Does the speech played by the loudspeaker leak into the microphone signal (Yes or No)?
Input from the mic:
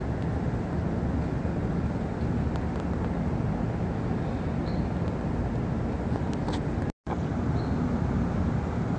No